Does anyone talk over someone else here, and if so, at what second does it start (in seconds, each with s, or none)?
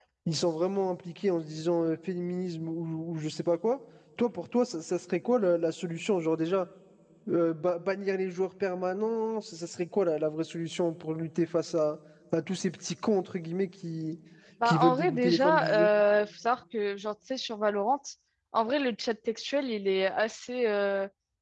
14.7 s